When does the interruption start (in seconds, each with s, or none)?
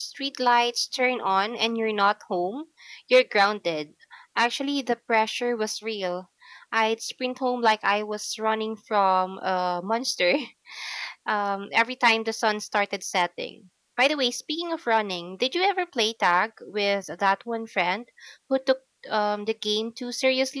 none